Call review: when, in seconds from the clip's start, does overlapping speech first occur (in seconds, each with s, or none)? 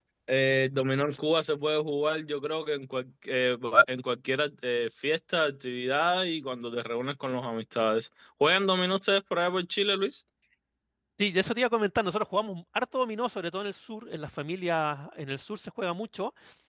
none